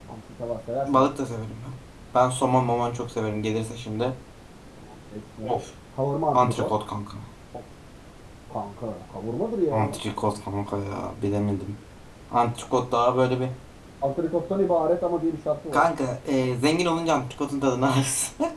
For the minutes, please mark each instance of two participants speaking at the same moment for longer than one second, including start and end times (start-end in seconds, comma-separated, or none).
none